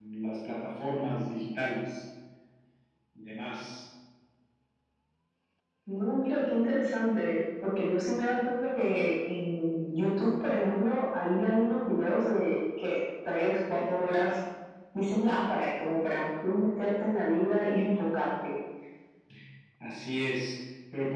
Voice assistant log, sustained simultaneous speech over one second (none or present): none